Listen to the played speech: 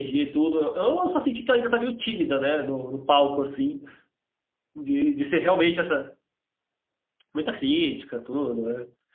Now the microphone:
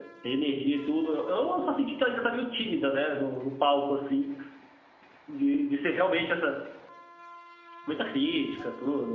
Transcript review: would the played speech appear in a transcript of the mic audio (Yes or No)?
Yes